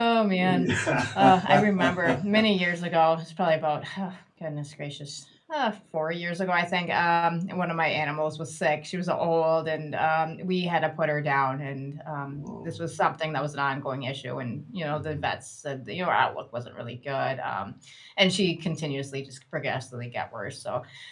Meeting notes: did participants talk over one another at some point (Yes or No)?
Yes